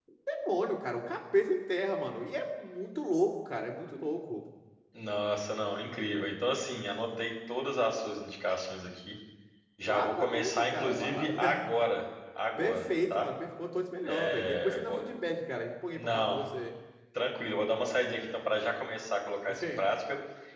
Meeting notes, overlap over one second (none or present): present